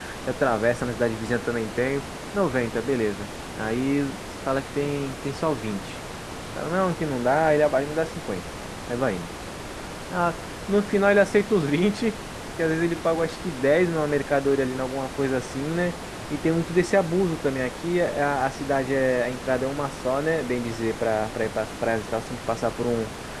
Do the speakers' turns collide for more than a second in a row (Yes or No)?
No